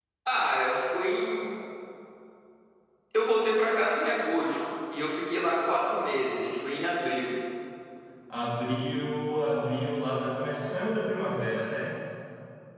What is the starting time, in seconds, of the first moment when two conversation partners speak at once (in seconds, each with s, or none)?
none